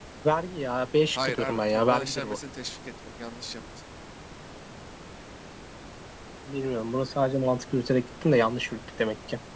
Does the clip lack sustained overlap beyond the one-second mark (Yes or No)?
No